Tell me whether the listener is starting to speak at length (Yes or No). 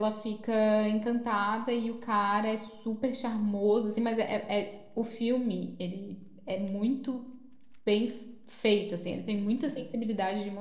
No